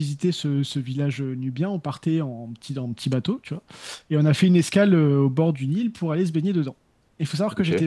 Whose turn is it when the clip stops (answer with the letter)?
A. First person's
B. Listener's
A